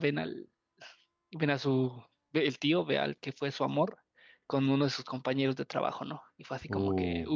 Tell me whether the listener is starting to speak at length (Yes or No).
Yes